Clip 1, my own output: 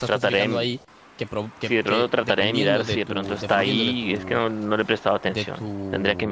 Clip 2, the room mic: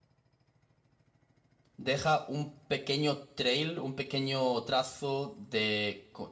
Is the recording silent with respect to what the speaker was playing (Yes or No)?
Yes